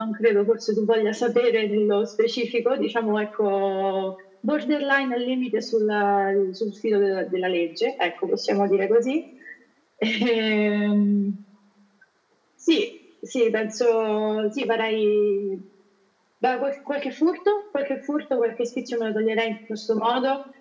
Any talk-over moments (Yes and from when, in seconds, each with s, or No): No